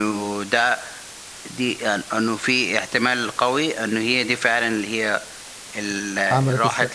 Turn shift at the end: No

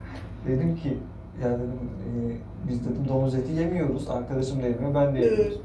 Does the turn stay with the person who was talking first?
Yes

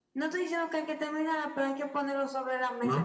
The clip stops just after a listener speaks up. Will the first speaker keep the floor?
No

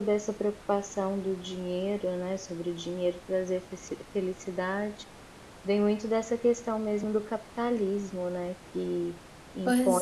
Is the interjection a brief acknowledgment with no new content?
Yes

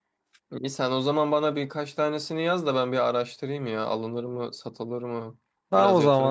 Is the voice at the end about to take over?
Yes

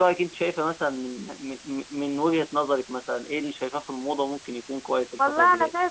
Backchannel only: No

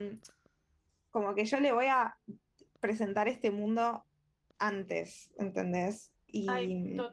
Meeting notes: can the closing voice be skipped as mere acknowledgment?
No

